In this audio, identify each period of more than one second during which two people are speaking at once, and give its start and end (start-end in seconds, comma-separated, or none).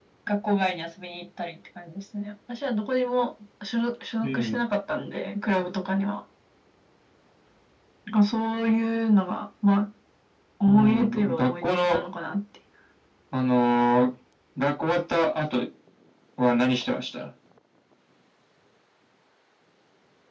10.7-12.1